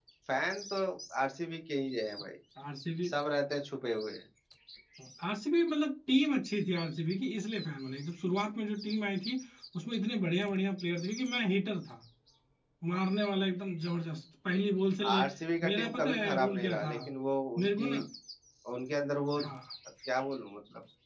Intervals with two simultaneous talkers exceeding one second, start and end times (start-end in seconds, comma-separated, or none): 15.7-16.9